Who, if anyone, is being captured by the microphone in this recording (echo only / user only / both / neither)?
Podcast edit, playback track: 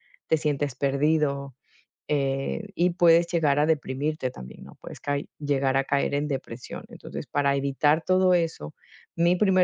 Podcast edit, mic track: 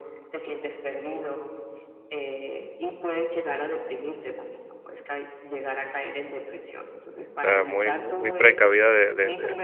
both